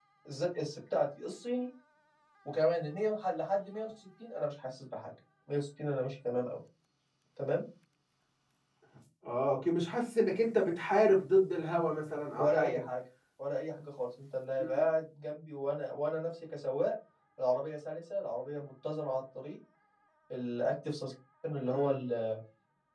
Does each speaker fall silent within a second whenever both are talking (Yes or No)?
Yes